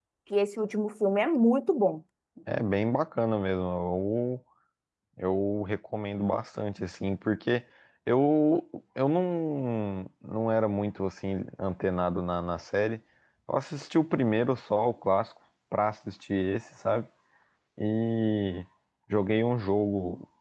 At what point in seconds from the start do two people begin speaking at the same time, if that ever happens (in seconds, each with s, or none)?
none